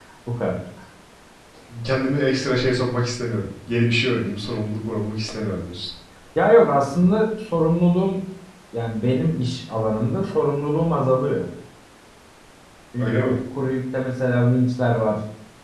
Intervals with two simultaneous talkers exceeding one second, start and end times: none

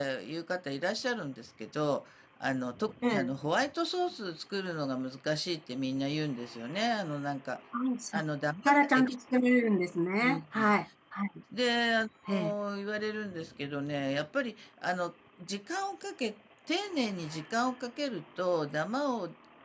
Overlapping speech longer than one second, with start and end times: none

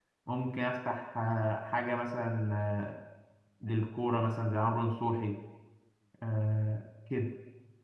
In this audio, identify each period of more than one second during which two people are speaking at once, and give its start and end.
none

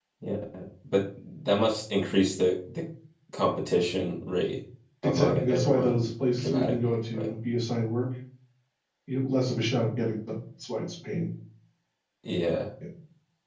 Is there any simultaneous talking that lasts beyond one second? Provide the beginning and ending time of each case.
5.0-7.3

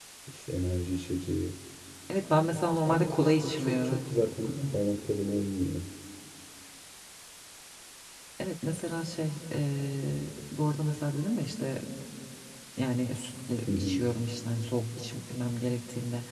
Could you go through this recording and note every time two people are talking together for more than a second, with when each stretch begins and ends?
2.9-4.1

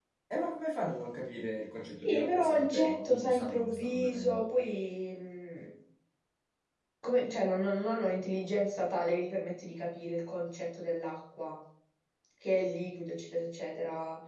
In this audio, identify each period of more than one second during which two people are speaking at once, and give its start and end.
2.0-4.5

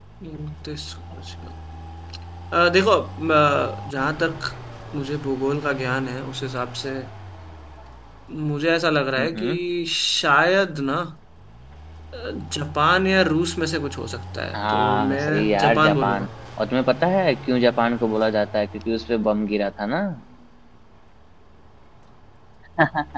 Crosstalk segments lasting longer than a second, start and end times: 14.6-16.3

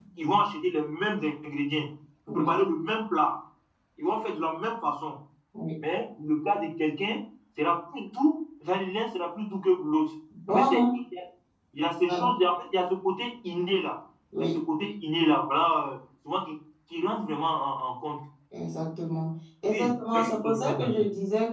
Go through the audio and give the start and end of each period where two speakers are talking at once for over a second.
19.7-21.0

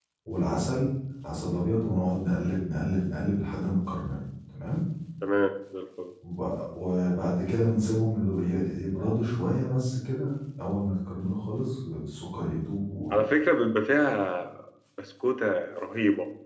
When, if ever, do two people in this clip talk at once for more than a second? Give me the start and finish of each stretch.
none

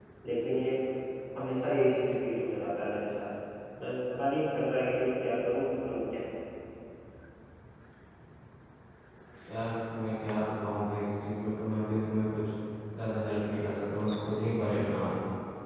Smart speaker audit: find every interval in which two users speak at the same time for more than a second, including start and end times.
none

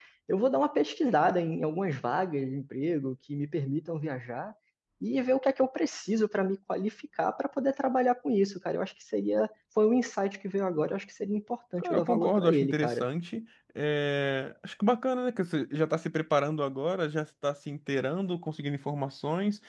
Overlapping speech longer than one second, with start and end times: 11.8-13.0

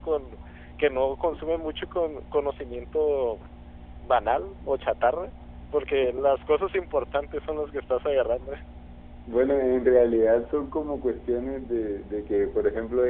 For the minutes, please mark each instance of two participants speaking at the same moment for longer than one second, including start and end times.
none

